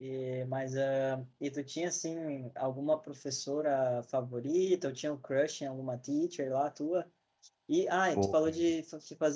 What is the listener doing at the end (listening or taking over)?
listening